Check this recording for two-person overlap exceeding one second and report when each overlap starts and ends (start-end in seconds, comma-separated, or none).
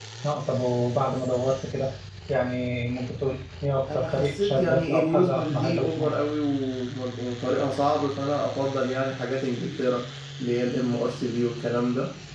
3.9-6.1